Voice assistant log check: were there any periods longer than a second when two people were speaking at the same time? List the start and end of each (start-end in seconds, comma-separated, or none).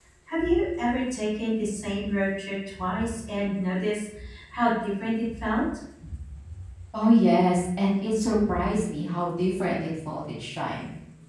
none